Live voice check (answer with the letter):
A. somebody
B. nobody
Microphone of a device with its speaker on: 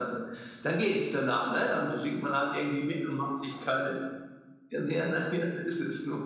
B